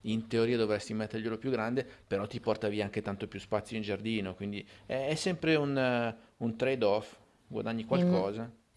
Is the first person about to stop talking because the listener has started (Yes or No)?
Yes